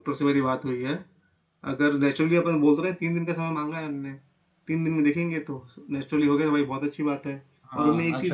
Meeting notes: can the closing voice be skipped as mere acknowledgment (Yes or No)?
No